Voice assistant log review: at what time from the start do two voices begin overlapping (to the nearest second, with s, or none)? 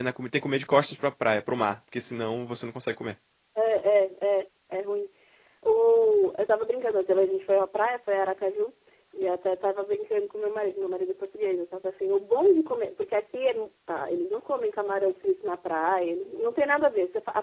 none